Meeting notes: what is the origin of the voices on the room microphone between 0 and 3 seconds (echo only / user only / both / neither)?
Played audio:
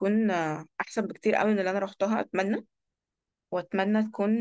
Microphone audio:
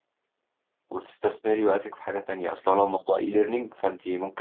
user only